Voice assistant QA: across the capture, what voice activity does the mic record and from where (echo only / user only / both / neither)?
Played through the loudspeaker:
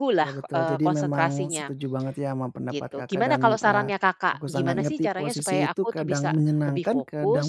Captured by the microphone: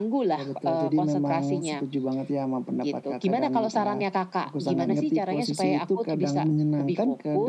echo only